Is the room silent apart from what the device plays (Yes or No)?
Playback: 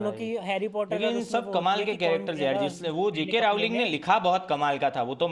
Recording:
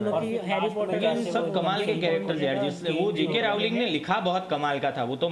No